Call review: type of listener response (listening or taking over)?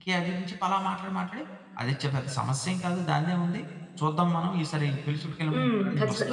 taking over